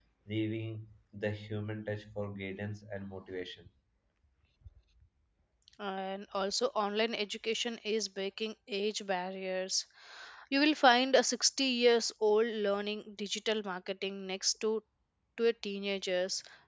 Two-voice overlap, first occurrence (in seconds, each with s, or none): none